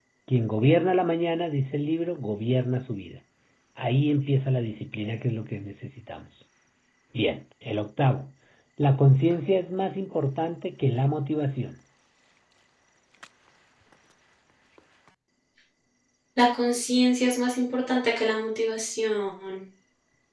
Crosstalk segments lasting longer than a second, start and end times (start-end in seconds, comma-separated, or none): none